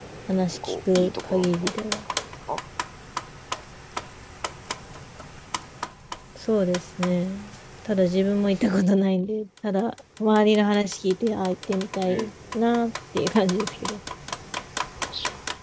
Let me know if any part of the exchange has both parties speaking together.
Yes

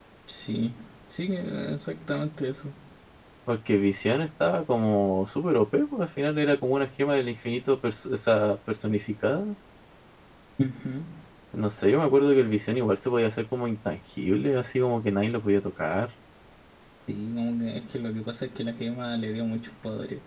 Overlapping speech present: No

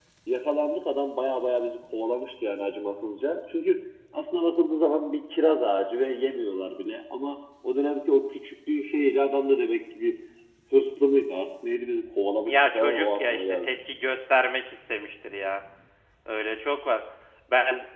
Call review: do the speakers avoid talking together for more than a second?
No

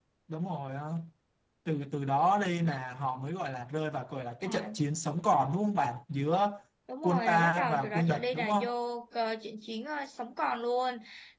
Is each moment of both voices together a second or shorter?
No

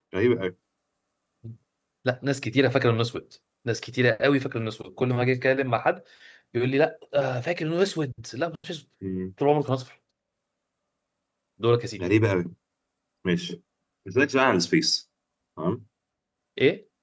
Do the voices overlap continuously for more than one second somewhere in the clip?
No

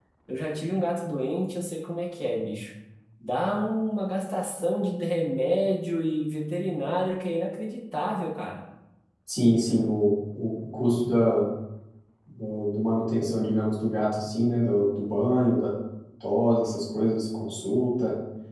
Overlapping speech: No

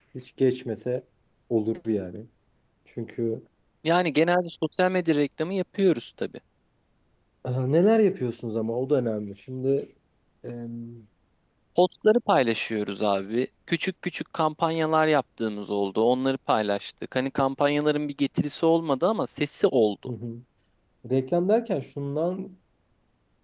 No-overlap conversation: Yes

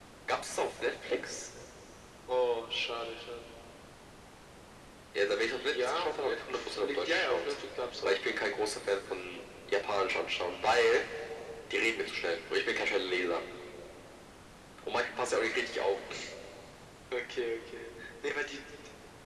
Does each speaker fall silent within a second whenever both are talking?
No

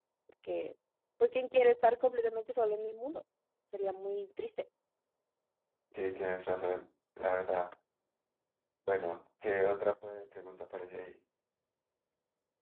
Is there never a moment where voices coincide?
Yes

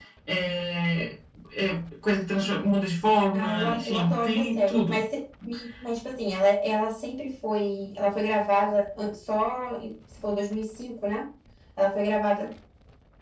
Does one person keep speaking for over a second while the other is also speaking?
Yes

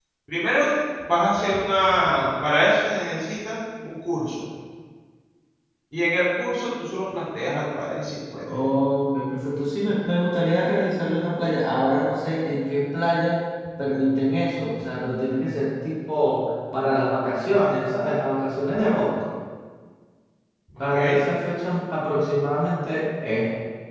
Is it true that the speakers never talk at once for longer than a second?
Yes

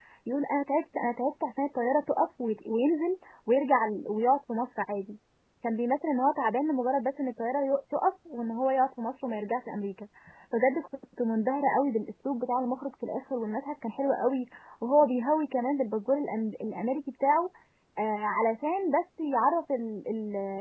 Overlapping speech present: No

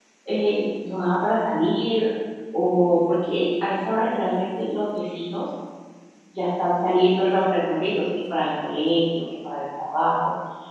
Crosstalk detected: No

